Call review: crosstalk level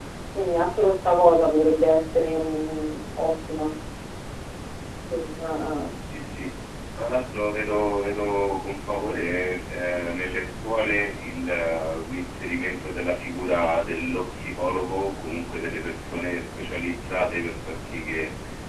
none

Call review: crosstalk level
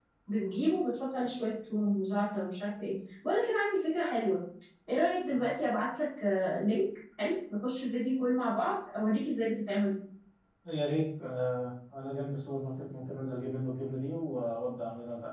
none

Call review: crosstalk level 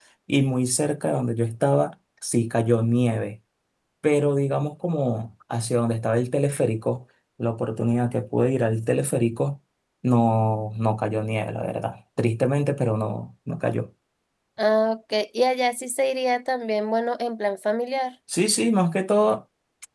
none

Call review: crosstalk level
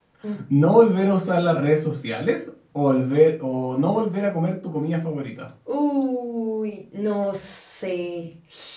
none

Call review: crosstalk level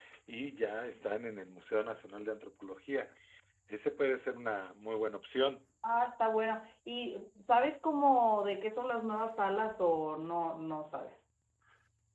none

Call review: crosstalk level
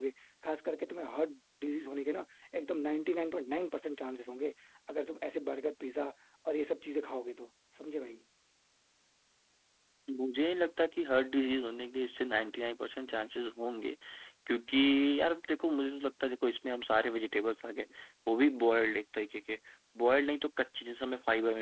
none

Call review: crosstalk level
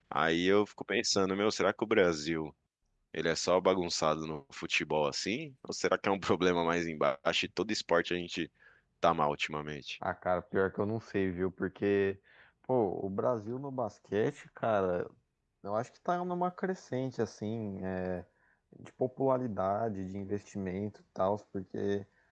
none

